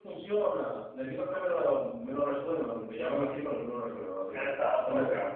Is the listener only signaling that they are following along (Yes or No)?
No